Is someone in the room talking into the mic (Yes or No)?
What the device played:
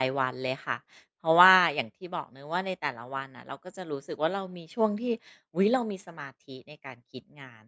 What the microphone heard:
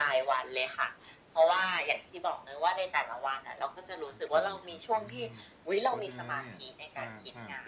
Yes